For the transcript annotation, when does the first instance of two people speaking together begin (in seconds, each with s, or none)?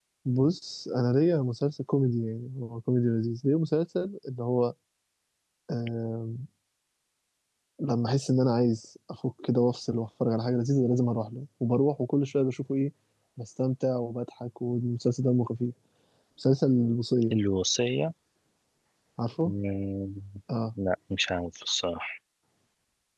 none